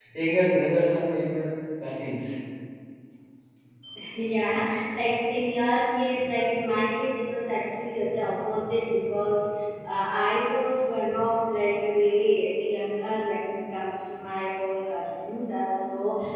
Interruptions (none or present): none